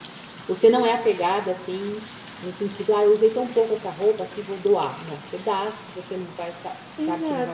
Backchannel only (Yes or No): No